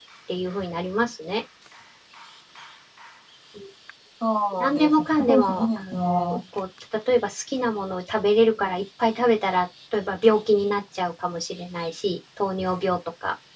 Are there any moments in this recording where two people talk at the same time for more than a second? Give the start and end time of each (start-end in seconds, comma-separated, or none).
4.6-6.4